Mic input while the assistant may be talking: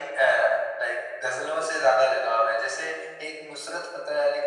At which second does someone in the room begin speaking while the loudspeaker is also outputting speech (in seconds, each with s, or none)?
none